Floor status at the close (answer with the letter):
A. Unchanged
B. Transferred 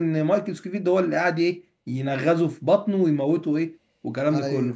B